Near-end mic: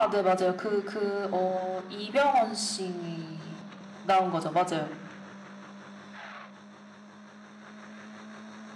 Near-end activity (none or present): none